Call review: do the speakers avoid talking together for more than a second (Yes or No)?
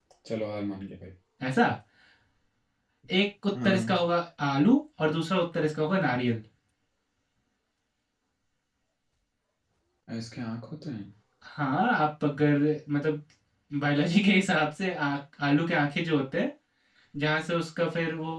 Yes